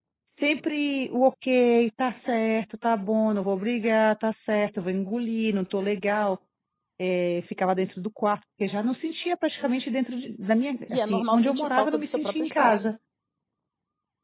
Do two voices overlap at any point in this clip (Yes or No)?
Yes